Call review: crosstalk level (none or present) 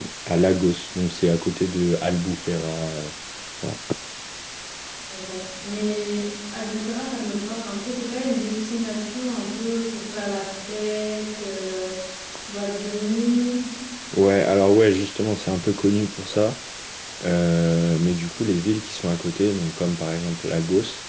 none